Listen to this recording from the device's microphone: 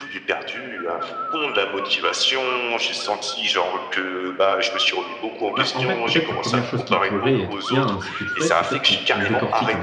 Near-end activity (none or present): present